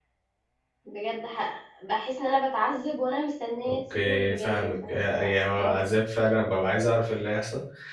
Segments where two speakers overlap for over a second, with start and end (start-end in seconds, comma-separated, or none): 3.7-5.8